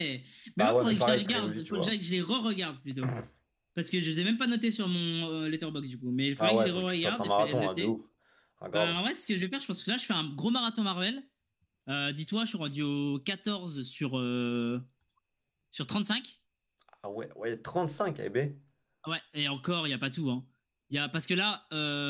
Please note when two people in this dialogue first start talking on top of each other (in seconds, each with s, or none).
0.6 s